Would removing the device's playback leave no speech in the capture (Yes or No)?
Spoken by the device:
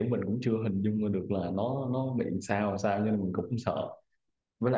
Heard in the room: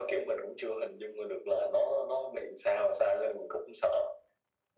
Yes